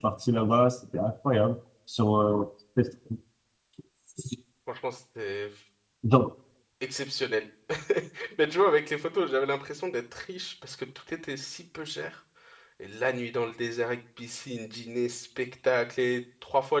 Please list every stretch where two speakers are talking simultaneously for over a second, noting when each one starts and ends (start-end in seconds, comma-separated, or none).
none